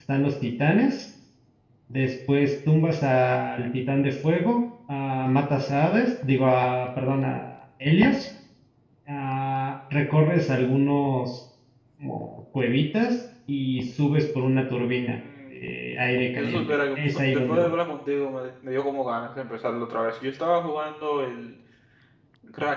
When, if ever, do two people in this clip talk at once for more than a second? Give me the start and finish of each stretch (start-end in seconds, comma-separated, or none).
16.4-17.7